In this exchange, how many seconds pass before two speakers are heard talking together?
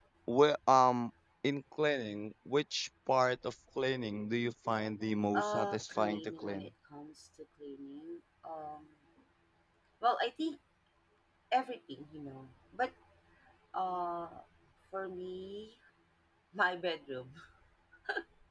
5.3 s

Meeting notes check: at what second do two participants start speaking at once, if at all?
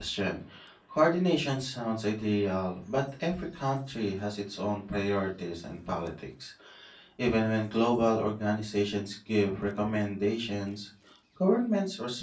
none

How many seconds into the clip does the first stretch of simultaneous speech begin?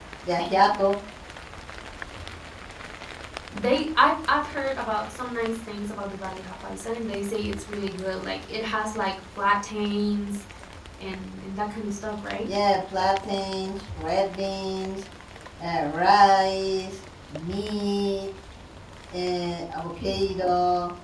none

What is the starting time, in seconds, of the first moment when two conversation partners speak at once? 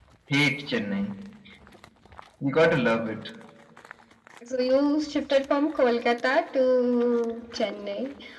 none

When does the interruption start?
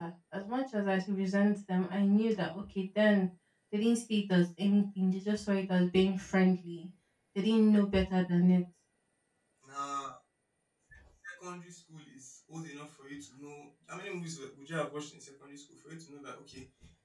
none

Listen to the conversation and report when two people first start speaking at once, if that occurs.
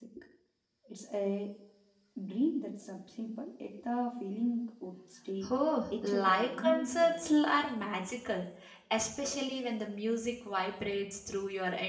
6.0 s

